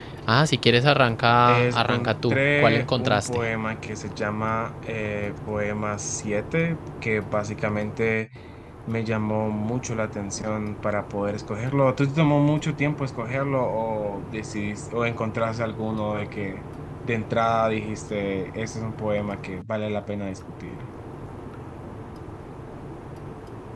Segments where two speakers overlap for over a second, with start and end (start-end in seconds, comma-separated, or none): 1.4-3.4